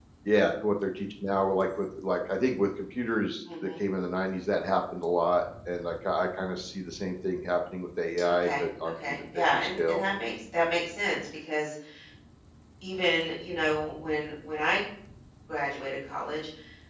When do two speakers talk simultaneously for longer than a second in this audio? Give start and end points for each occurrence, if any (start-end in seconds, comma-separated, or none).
8.3-10.0